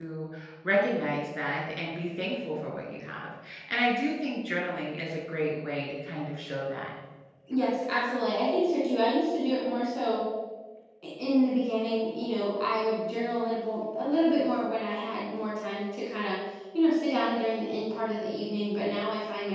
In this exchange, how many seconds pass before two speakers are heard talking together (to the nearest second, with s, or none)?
none